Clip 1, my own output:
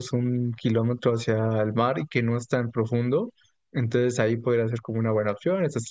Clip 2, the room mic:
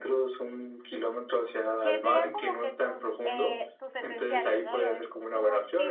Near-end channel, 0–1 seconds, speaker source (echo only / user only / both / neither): echo only